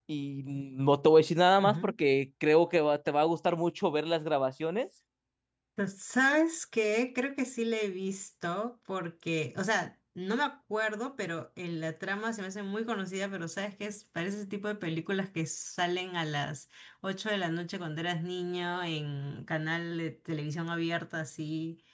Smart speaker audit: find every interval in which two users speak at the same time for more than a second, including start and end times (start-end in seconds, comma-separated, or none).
none